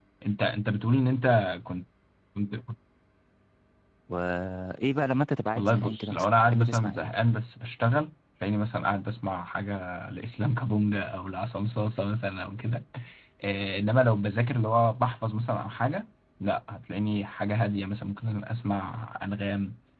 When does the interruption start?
5.5 s

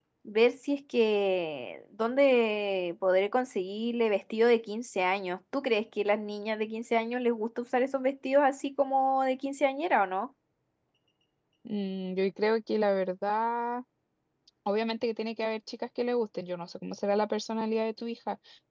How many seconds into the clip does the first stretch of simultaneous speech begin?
none

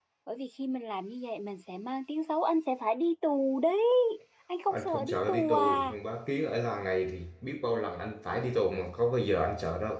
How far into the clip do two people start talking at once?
4.7 s

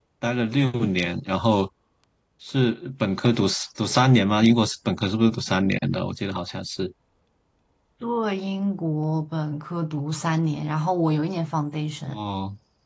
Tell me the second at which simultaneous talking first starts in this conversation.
none

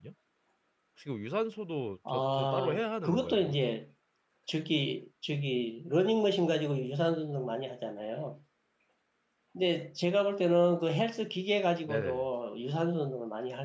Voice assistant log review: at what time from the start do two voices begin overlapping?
2.1 s

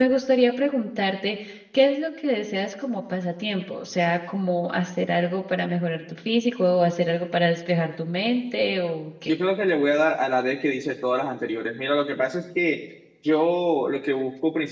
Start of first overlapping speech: none

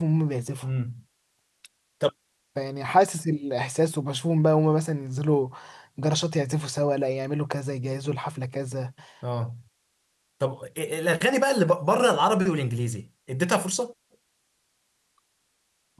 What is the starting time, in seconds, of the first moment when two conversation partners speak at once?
none

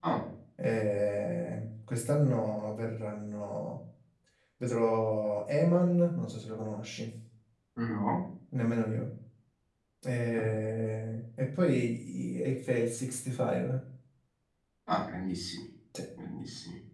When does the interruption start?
none

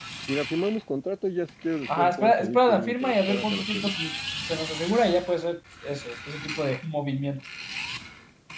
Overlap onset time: 1.9 s

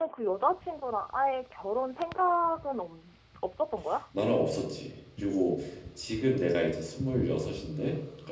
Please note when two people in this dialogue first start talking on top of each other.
none

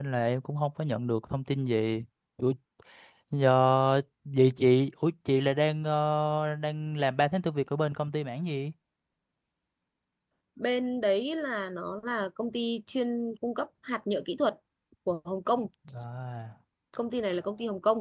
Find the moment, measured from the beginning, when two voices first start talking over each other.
none

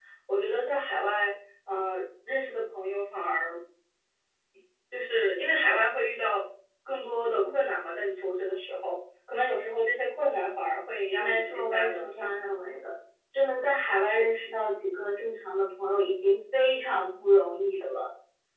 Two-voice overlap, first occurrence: 11.2 s

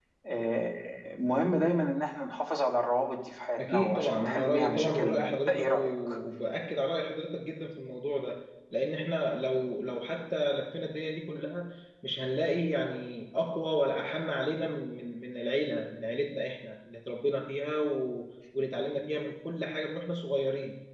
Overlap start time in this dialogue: 3.6 s

